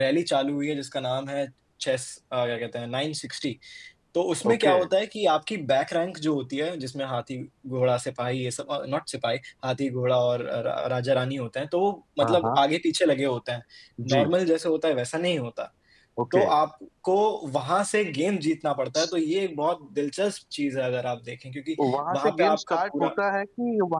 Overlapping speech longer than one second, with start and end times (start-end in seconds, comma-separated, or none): 21.8-23.1